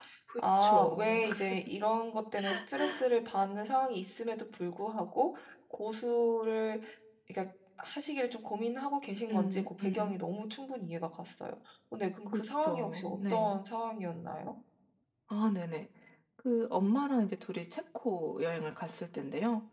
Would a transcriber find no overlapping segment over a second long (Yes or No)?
No